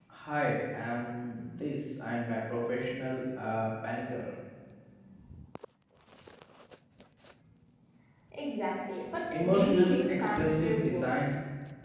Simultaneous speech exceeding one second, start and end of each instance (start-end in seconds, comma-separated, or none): 9.3-11.3